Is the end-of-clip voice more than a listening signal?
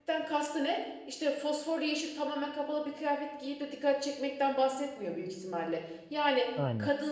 No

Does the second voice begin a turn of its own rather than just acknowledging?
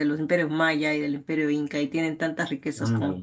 No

